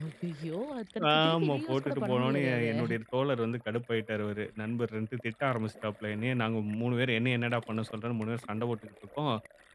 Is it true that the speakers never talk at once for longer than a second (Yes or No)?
No